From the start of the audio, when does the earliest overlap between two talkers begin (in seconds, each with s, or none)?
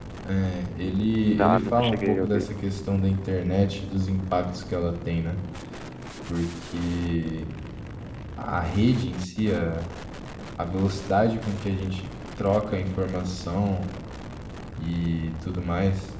0.8 s